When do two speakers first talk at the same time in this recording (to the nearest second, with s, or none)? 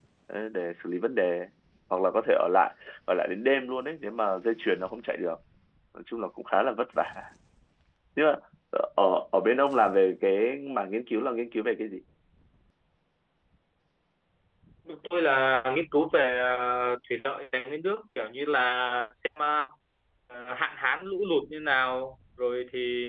none